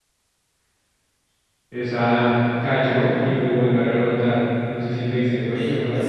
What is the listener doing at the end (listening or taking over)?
taking over